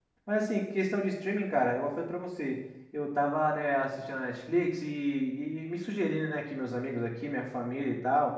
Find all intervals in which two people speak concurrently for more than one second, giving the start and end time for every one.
none

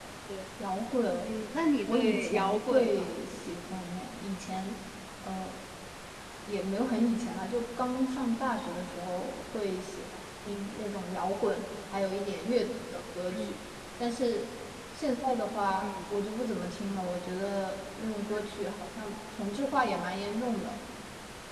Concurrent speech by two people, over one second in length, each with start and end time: 1.9-3.1

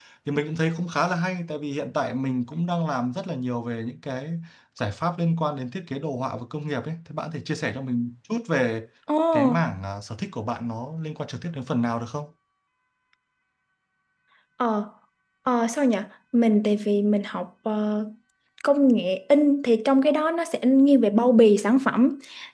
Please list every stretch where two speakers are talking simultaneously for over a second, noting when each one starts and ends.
none

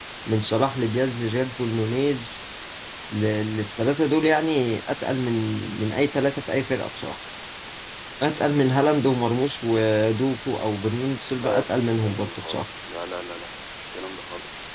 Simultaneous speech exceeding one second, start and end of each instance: 11.4-12.7

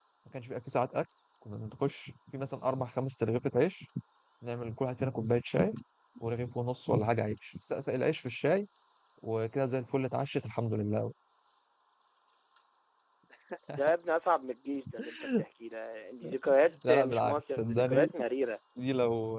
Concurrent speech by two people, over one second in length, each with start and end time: 16.9-18.1

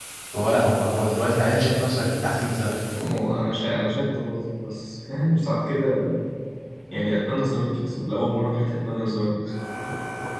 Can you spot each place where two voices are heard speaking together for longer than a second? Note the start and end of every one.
none

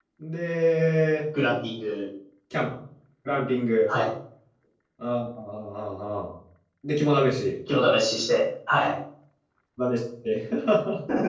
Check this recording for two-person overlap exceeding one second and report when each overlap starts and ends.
none

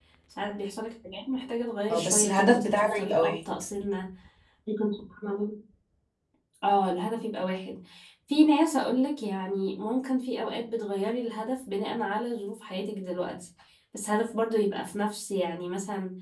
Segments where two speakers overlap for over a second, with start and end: 1.9-3.4

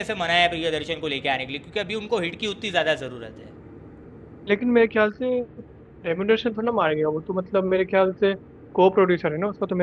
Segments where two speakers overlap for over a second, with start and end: none

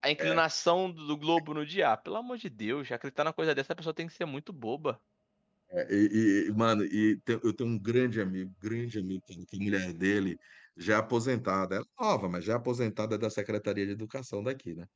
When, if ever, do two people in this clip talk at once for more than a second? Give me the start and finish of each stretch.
none

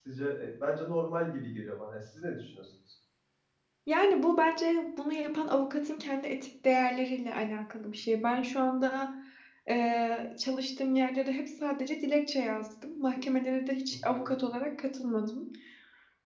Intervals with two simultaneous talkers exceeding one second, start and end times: none

